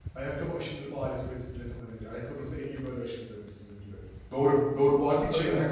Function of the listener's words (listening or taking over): listening